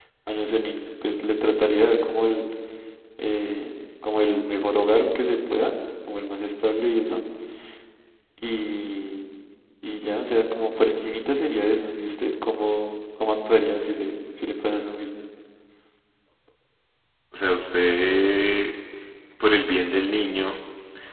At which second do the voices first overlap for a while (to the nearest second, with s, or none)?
none